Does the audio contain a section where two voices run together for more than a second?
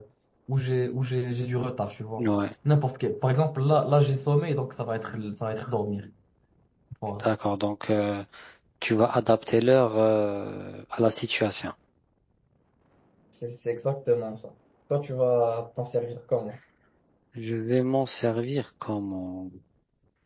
No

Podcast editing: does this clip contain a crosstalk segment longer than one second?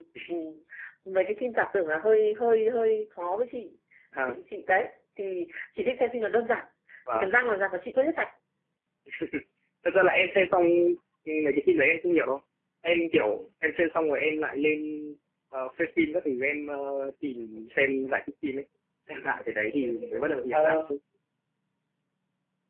No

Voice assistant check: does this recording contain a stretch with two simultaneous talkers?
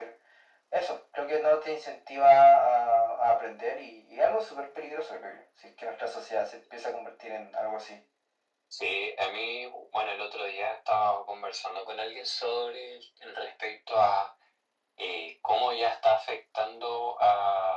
No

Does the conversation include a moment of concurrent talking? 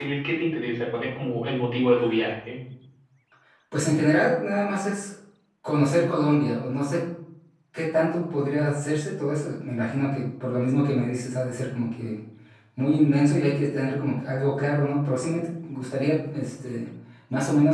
No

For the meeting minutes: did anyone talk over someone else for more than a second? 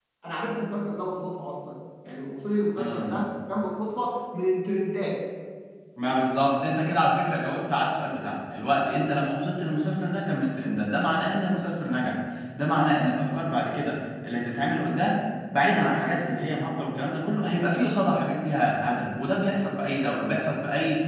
No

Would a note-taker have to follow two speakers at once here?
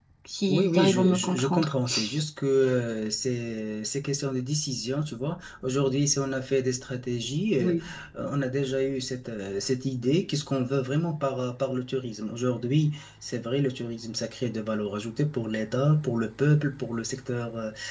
Yes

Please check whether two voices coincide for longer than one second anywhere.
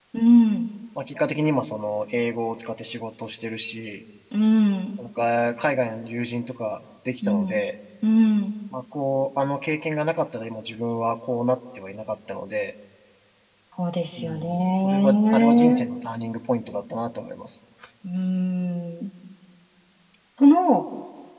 Yes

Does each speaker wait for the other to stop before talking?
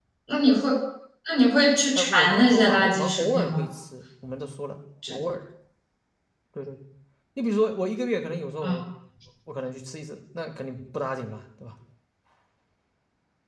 No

